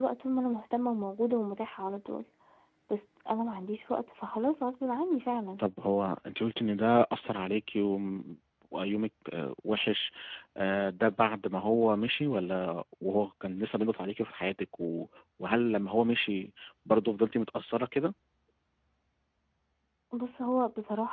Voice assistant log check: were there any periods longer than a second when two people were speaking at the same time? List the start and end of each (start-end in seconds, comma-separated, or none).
none